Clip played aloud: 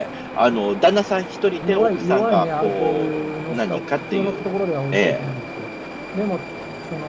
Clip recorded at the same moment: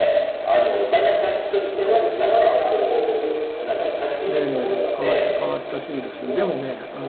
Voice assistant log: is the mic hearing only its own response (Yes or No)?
No